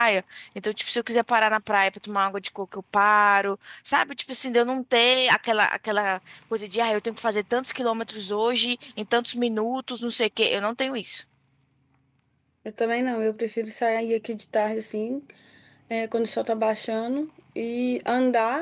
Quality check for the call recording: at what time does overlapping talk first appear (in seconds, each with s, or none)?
none